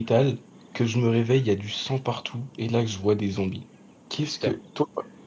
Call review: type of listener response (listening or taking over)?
listening